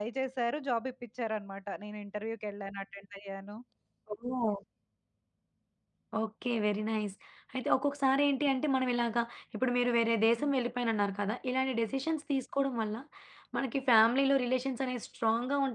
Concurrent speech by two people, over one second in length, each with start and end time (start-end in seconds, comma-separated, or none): none